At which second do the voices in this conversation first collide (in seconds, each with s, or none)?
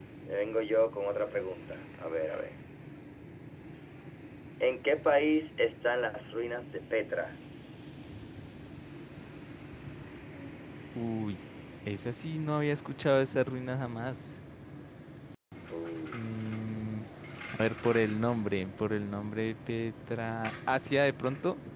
none